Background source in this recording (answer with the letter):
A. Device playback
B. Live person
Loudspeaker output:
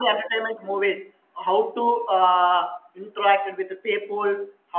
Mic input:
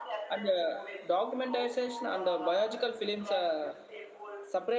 A